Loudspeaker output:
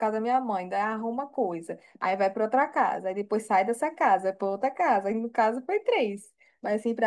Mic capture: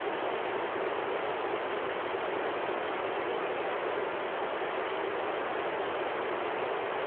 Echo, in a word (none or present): none